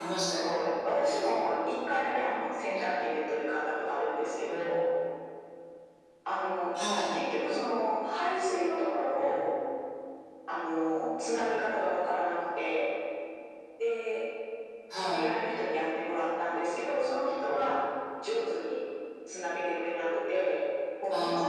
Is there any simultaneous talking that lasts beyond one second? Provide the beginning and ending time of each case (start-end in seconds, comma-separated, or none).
none